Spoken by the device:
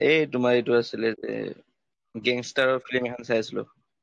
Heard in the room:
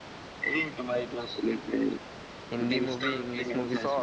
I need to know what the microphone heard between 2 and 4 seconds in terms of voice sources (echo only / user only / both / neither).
both